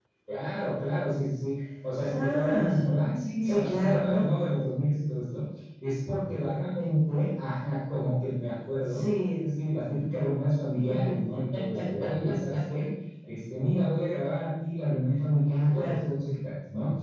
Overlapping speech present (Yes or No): Yes